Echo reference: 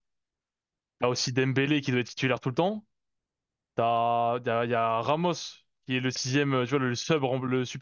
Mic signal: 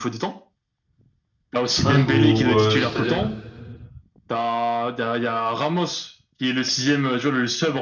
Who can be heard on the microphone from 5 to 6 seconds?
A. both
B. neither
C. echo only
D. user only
C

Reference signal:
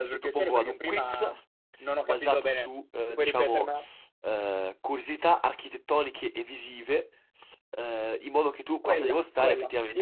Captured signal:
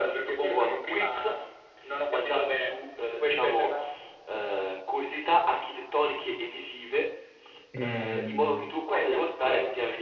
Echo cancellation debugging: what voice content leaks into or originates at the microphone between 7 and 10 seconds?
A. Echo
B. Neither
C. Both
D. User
C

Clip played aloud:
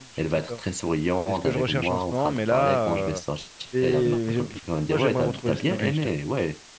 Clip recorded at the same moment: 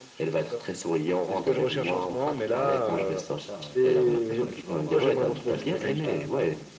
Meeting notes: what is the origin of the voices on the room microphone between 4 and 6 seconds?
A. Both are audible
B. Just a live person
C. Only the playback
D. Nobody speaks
A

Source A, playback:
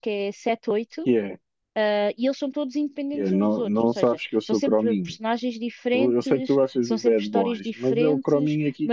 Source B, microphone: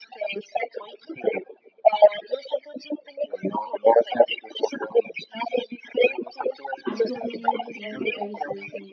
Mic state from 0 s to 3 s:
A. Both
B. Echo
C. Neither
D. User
B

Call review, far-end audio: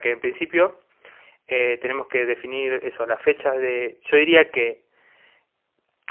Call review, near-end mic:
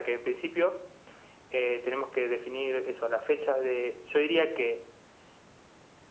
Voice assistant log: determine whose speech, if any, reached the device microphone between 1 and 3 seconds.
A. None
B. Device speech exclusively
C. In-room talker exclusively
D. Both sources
B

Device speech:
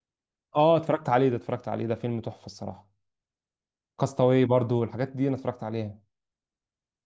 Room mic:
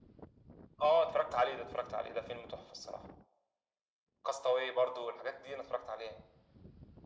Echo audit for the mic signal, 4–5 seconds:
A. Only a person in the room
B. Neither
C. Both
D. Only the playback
D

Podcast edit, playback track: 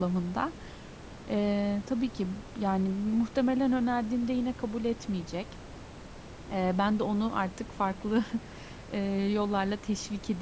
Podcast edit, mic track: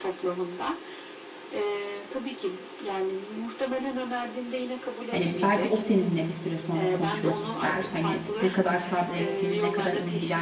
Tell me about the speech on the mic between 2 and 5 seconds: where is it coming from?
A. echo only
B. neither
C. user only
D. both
A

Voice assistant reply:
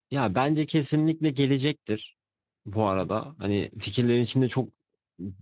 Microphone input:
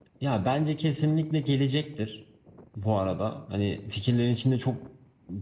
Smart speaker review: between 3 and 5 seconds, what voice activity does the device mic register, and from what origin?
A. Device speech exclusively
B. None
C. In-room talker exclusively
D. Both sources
A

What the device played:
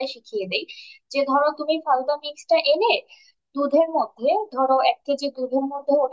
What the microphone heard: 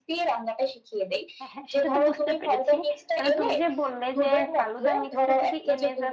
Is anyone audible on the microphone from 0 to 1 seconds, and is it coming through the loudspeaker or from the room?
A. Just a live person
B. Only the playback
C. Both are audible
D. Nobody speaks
B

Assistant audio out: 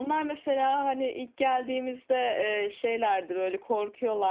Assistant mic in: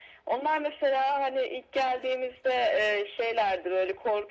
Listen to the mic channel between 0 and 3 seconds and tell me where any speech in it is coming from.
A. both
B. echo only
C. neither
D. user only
B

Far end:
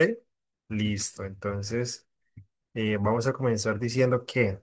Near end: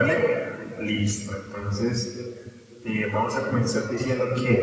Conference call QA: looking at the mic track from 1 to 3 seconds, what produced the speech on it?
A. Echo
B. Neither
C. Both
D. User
A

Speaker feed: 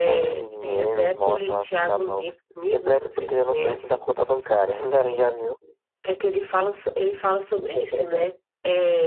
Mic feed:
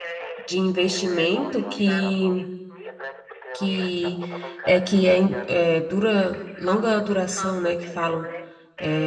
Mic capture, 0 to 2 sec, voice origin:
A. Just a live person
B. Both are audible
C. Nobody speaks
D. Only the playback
B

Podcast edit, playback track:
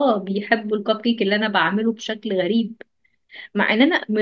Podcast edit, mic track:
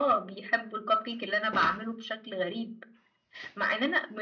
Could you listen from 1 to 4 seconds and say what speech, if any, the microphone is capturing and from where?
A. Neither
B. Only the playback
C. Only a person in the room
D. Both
B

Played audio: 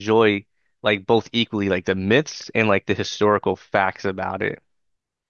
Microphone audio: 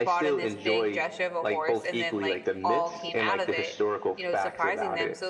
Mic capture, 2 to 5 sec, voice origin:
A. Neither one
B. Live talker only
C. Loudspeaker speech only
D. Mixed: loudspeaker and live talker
D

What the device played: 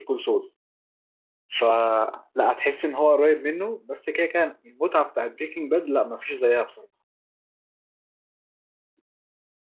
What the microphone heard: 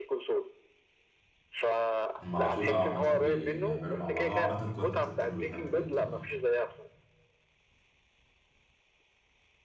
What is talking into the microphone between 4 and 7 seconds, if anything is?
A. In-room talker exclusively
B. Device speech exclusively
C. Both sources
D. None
C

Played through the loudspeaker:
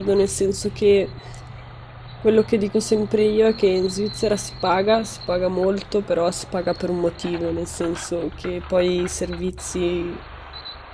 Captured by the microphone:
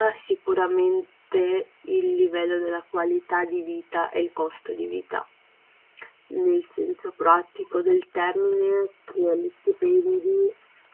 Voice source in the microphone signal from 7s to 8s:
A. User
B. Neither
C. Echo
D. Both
A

